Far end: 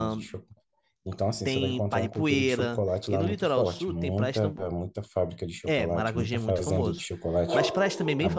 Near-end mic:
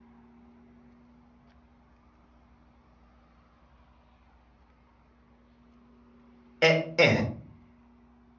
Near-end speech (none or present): present